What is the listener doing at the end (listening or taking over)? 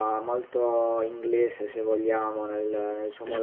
listening